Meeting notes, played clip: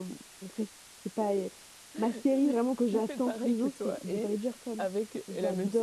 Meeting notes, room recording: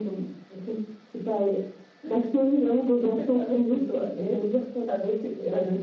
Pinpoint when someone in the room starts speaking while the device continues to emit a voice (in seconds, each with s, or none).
none